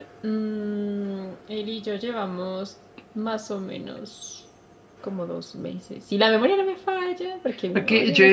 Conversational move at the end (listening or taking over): taking over